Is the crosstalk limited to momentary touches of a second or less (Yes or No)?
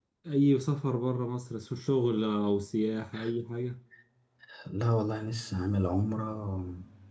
Yes